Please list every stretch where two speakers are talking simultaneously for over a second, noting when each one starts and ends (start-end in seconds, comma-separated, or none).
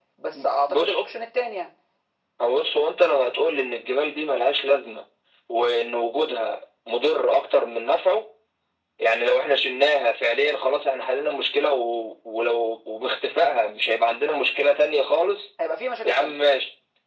none